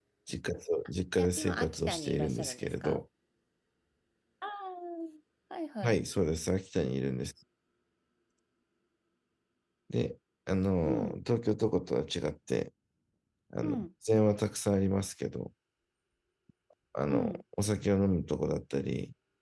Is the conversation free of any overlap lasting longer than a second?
No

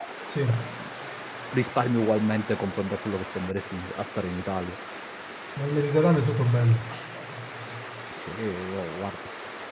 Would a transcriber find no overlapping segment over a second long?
Yes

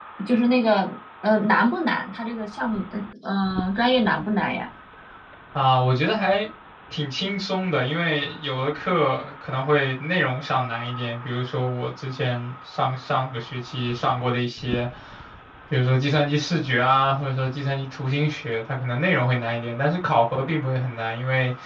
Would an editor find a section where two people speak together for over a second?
No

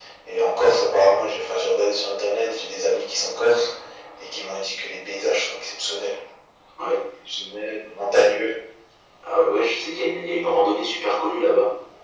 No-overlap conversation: Yes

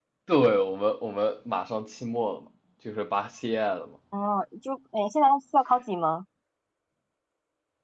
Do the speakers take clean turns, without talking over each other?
Yes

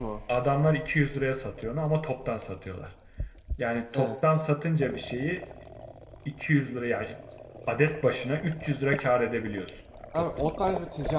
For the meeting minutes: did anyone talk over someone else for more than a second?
No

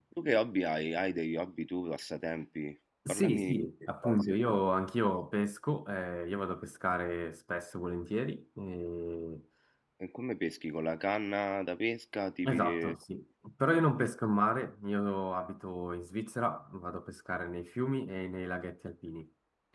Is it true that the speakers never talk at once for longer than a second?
No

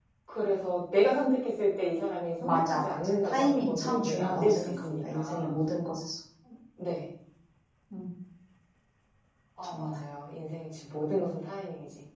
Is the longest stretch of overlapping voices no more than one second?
No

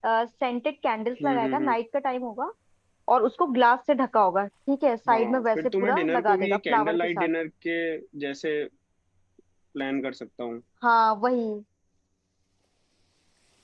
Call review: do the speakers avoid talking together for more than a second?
No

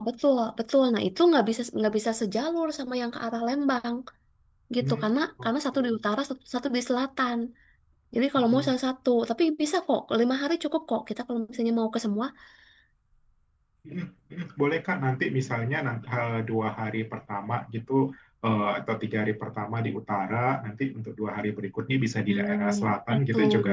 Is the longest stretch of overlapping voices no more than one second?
No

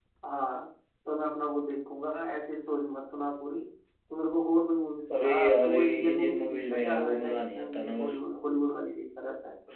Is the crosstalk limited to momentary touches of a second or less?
No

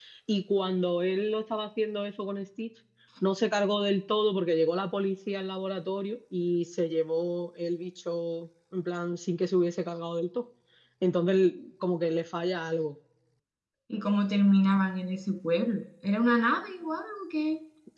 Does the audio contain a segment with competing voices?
No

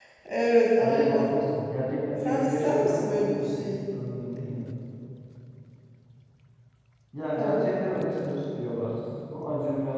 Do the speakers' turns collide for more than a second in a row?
Yes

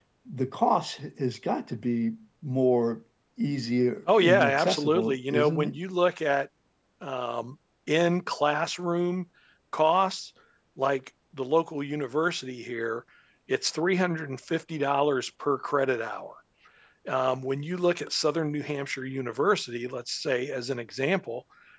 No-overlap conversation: No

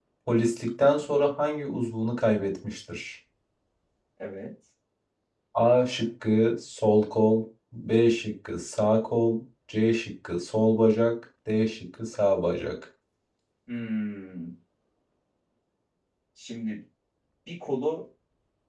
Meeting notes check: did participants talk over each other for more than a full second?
No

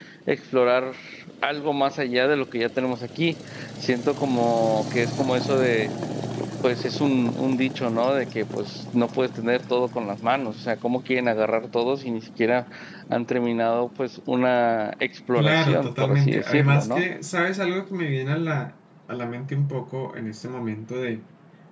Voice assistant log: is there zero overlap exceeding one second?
No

